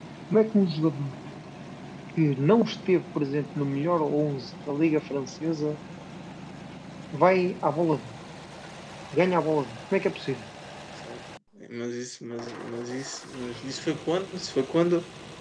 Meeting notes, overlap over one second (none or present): none